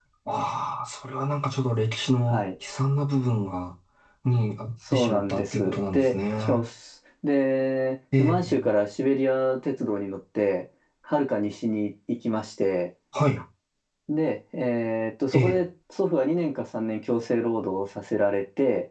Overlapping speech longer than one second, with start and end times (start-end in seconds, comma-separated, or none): 4.9-6.6